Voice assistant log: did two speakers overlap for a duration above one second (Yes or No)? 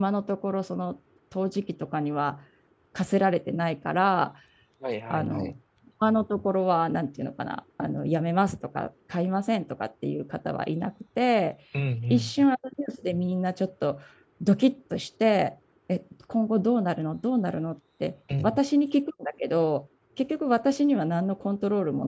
No